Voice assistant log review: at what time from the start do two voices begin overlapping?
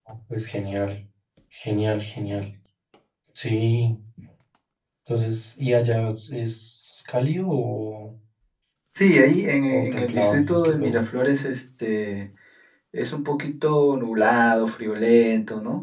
9.7 s

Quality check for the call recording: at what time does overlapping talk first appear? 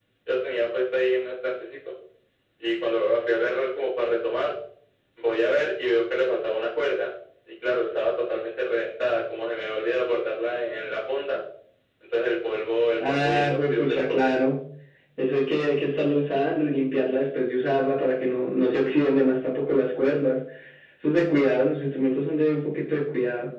13.0 s

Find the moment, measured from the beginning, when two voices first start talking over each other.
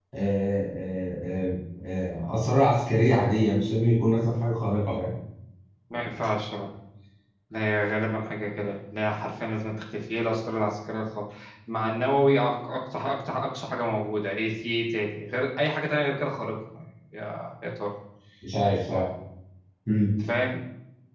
none

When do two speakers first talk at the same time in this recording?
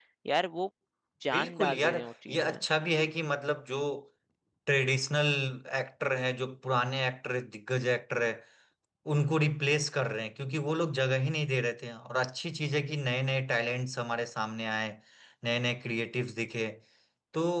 1.3 s

